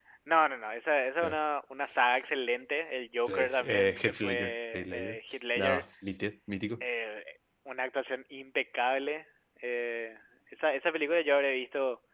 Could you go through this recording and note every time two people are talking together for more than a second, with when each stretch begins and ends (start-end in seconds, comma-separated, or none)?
3.3-5.2